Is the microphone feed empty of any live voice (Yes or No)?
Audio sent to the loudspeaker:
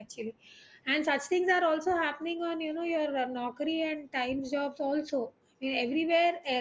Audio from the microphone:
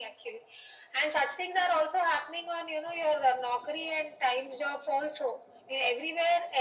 Yes